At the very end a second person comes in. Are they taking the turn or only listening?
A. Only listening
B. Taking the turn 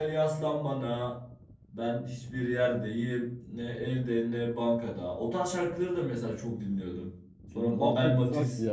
B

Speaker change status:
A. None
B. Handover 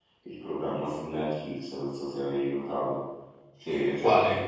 A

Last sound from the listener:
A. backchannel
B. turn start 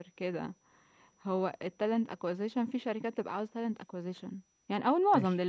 A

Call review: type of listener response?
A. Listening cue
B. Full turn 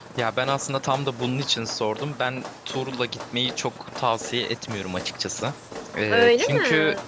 A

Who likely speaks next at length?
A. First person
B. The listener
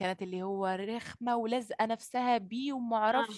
A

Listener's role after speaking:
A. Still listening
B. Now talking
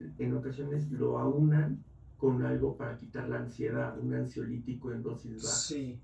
B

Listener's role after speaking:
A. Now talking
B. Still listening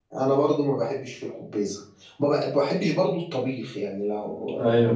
B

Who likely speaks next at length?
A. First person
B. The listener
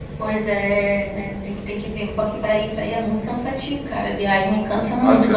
B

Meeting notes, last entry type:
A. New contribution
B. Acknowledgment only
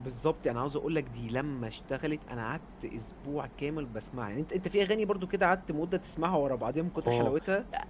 A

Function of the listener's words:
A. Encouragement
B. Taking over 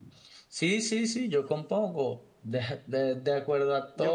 A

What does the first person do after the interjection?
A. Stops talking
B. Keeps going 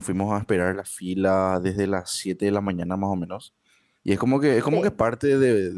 B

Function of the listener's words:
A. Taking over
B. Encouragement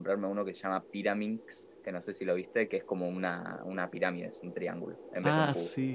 A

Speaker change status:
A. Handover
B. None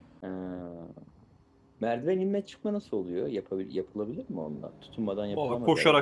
A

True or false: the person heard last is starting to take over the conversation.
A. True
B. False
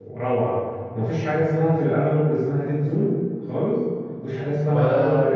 A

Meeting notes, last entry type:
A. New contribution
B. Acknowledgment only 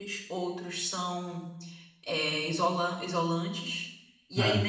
B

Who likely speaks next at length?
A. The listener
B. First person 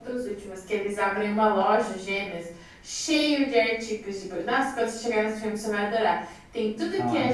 B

